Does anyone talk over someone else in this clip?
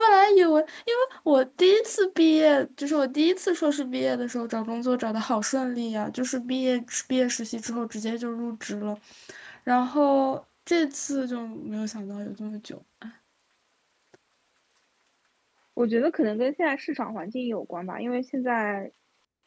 No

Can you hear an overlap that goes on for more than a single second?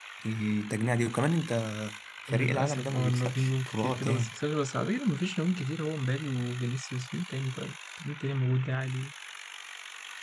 Yes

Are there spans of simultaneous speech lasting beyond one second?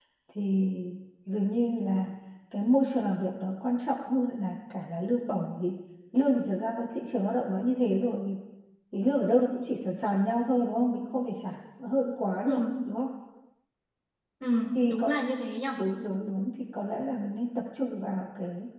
No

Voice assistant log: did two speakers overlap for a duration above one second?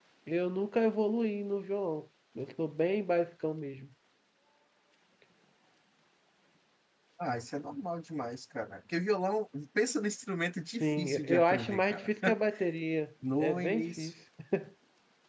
Yes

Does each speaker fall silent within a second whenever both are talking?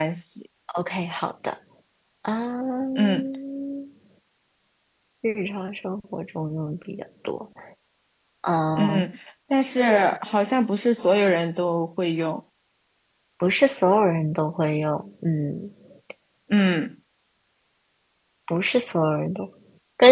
Yes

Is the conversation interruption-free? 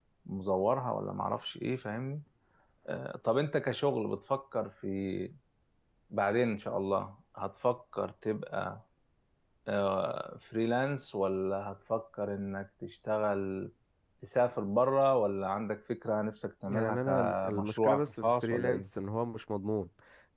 No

